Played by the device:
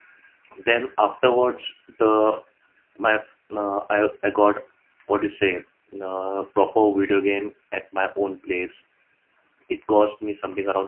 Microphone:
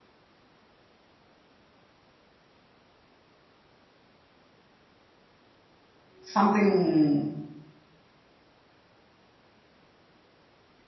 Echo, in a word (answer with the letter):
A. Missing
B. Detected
A